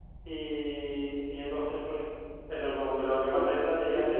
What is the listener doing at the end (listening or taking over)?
taking over